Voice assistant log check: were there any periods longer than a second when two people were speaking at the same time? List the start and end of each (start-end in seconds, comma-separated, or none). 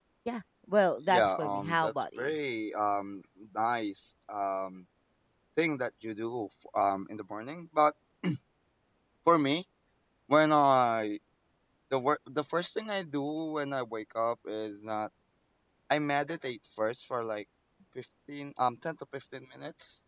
1.1-2.3